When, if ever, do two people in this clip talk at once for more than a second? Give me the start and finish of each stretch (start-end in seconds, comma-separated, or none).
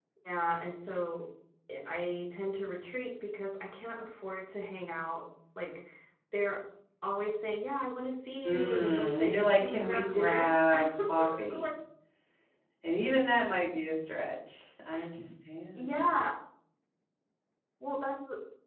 8.4-11.6